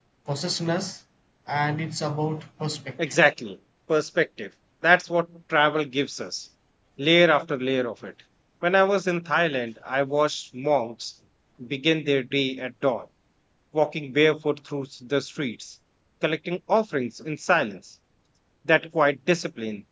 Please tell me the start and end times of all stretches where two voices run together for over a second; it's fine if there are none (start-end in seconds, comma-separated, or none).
none